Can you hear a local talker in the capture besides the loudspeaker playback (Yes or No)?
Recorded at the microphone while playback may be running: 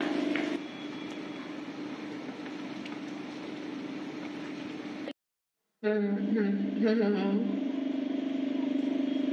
Yes